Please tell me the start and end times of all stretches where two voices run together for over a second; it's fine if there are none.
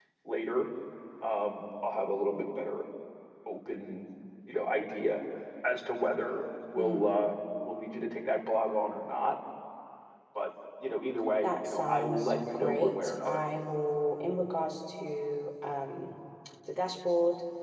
11.4-13.4

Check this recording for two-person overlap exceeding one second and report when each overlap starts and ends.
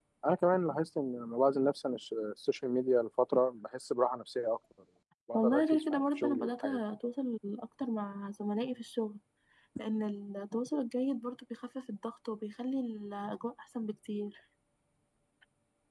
5.3-6.8

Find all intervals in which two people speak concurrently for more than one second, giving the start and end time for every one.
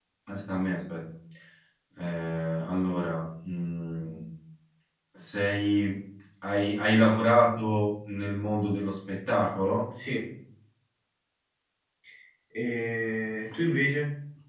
none

